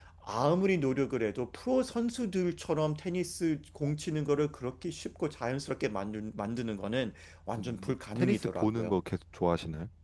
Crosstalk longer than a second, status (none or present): present